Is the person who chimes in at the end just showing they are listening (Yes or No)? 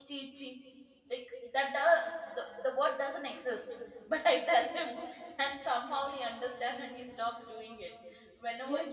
No